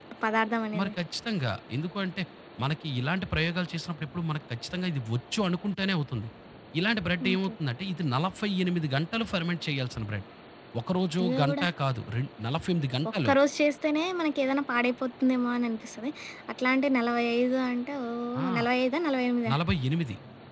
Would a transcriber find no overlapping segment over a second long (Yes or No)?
Yes